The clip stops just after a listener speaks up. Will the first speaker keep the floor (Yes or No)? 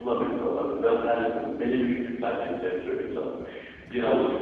Yes